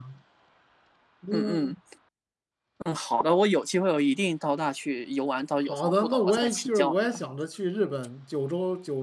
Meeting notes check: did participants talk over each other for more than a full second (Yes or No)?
Yes